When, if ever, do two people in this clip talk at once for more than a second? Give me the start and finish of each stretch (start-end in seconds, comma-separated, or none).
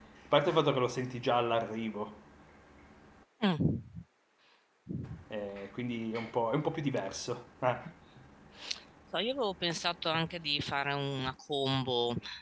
none